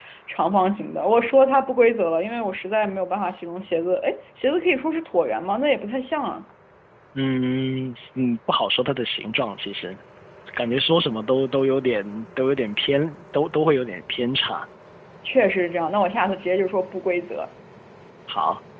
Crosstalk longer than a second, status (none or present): none